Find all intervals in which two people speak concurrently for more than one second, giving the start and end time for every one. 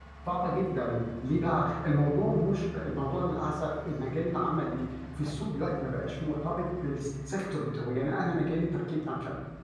none

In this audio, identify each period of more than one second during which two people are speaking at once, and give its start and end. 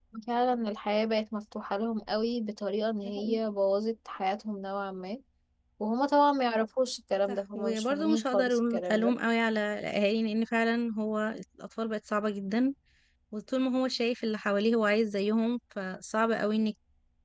7.3-9.2

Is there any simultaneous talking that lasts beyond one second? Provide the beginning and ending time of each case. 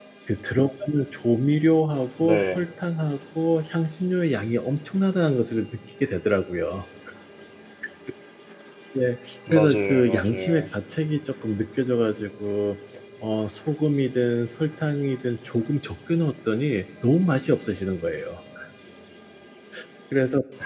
9.5-10.7

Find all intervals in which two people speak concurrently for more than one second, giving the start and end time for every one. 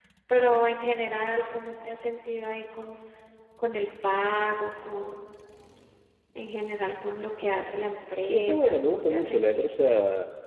8.3-9.7

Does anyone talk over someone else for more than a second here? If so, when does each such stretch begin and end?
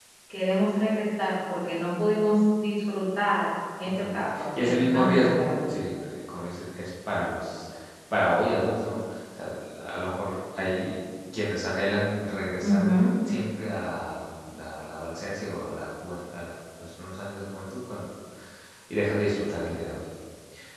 3.9-5.7

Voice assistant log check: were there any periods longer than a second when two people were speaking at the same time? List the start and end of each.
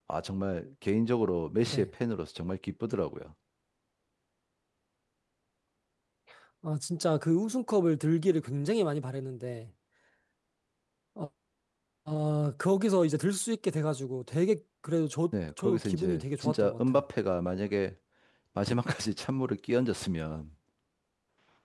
15.6-17.0

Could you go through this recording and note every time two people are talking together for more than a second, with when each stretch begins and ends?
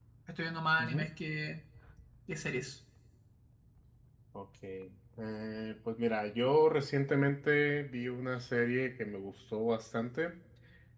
none

